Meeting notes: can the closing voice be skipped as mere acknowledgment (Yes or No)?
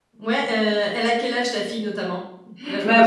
No